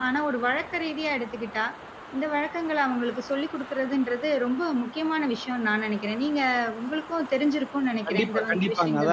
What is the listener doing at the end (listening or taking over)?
taking over